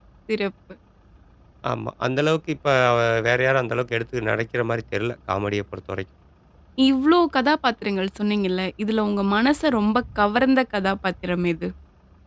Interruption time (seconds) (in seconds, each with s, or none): none